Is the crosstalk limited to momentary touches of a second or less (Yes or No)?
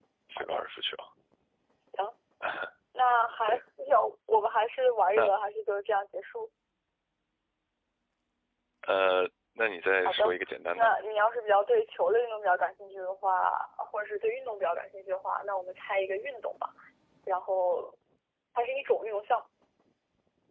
Yes